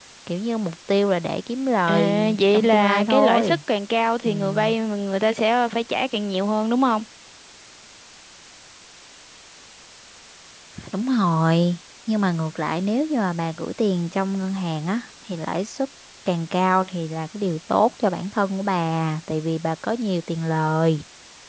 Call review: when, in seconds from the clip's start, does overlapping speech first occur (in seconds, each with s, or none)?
1.9 s